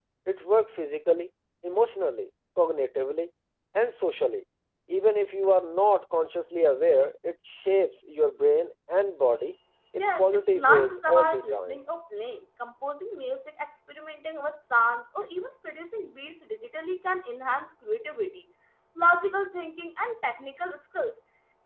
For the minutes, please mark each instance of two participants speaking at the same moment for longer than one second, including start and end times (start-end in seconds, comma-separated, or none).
10.0-11.8